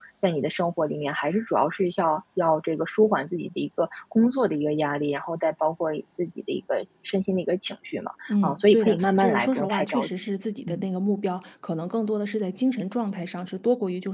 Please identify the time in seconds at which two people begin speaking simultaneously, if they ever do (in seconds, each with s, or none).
8.3 s